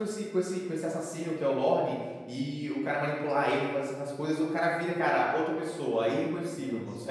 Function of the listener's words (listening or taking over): listening